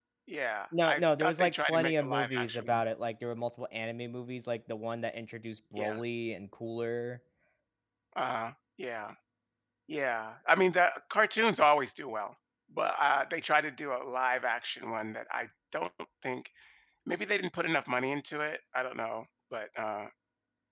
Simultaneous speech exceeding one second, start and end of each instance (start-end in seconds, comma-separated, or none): 0.8-2.8